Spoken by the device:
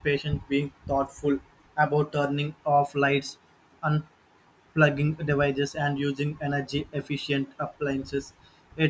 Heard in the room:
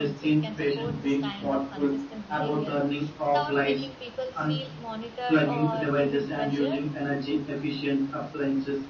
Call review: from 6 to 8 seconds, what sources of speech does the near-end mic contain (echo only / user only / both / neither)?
both